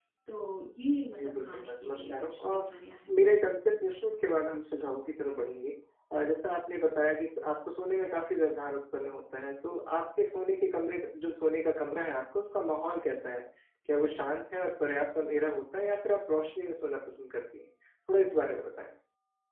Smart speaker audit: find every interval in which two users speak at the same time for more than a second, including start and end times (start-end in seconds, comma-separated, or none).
1.1-2.6